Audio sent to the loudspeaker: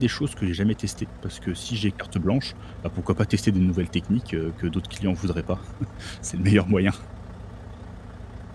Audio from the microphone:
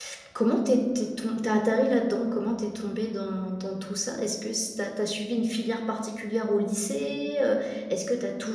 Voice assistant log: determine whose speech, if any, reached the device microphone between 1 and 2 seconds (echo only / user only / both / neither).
user only